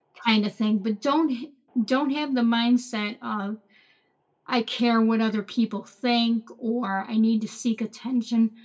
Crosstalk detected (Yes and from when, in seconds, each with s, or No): No